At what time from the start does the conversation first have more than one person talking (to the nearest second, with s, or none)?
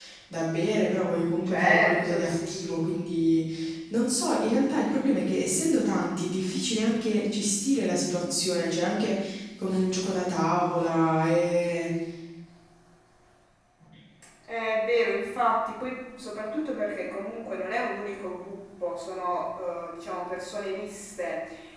1 s